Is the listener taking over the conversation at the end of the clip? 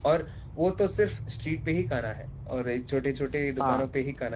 No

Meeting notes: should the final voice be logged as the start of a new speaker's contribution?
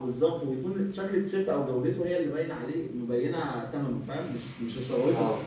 Yes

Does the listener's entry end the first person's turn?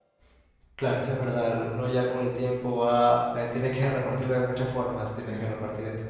No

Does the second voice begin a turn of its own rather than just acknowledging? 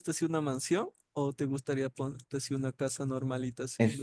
Yes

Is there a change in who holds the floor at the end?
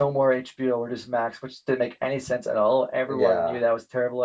No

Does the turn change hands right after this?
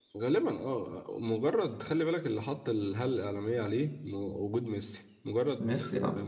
No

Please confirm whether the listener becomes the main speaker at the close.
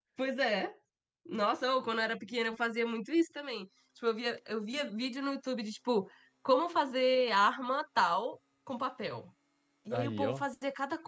No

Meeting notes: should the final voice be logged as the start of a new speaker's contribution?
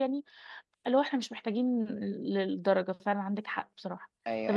Yes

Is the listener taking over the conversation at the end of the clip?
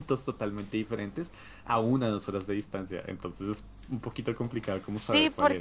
Yes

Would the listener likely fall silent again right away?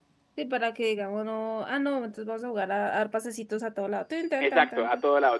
No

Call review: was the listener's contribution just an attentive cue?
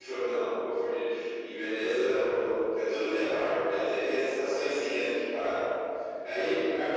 Yes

